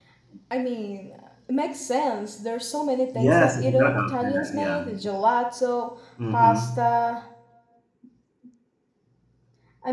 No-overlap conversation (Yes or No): No